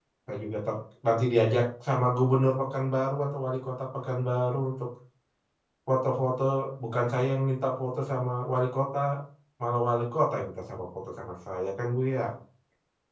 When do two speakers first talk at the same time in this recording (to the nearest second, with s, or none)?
none